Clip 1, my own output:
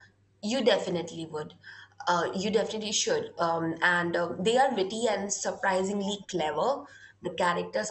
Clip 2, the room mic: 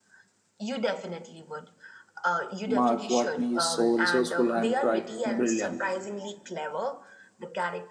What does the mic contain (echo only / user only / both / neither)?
both